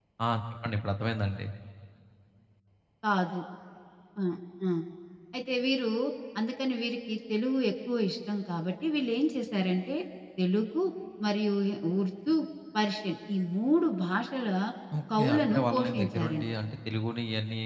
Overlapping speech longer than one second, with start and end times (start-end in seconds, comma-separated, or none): 15.2-16.4